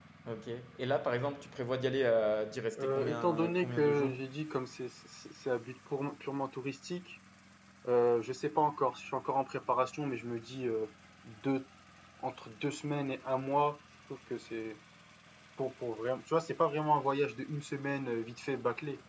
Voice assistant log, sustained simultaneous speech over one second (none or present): present